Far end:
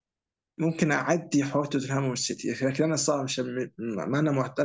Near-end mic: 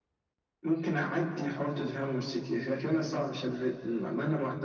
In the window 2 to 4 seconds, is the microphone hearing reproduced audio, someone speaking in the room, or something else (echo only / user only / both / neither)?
echo only